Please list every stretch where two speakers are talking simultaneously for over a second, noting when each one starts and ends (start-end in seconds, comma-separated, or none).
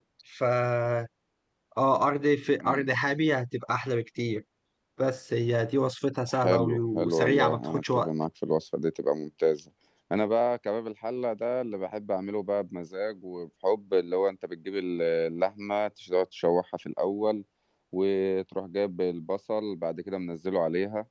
6.3-8.1